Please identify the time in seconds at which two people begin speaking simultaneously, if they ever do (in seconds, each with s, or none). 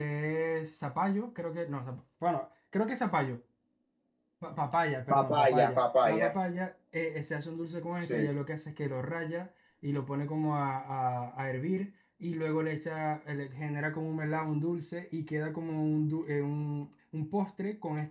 5.1 s